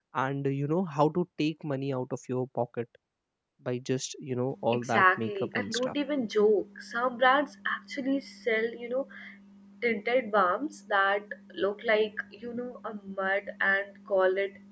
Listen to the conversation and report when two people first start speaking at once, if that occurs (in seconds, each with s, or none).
4.7 s